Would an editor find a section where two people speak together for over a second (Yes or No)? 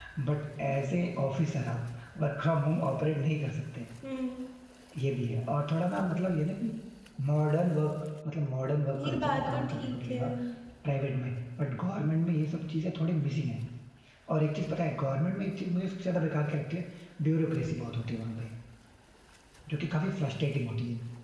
Yes